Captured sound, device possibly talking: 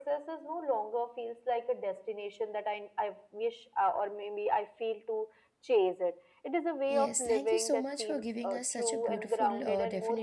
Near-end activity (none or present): present